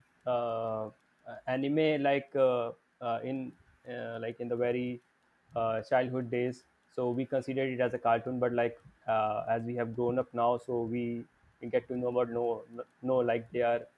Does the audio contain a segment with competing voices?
No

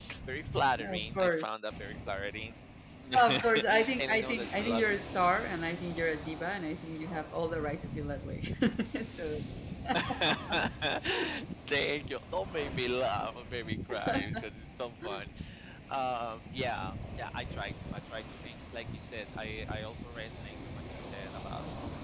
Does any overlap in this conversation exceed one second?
Yes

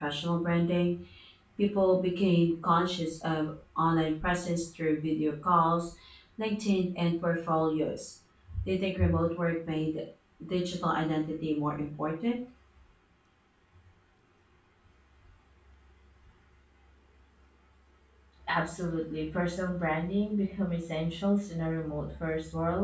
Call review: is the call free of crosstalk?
Yes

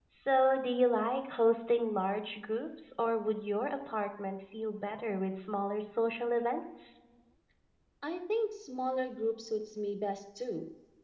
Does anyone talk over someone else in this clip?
No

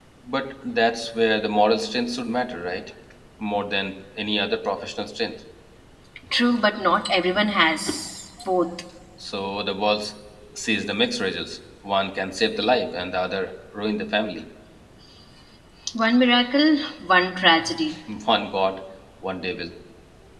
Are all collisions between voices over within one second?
Yes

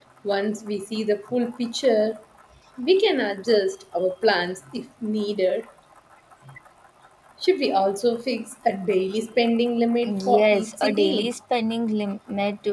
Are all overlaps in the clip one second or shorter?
No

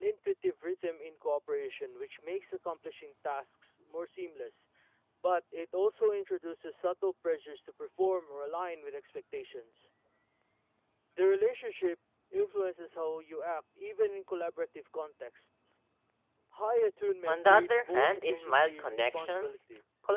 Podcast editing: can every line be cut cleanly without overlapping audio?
No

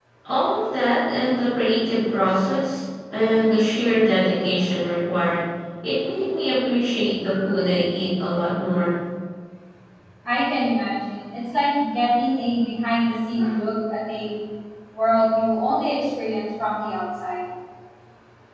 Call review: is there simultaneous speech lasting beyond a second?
No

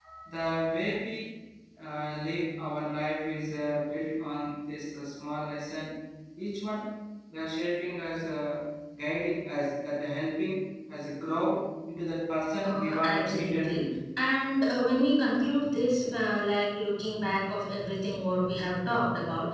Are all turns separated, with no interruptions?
No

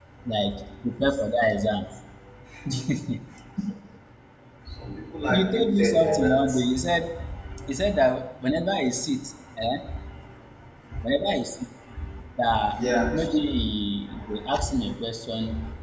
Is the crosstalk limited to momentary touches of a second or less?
No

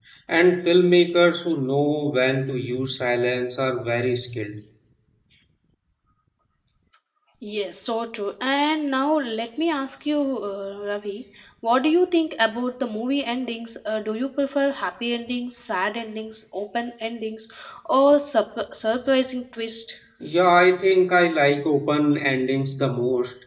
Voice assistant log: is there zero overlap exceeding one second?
Yes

